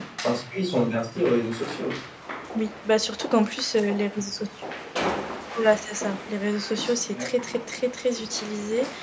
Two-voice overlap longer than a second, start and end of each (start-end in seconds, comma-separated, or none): none